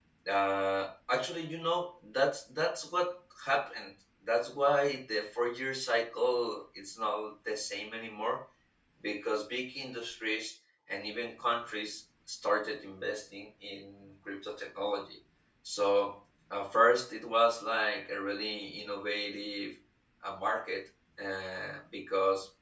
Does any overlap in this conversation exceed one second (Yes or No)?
No